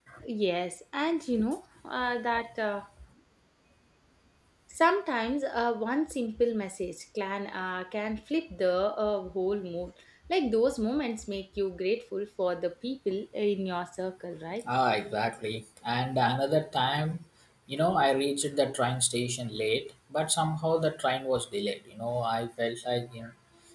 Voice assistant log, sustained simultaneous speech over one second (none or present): none